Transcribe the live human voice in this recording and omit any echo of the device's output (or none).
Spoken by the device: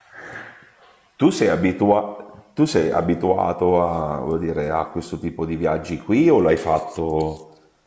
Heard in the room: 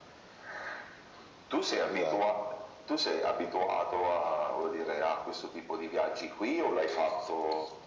Dai.